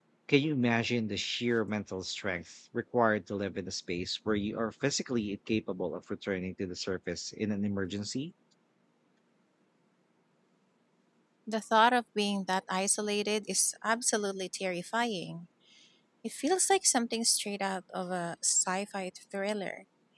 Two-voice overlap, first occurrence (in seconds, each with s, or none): none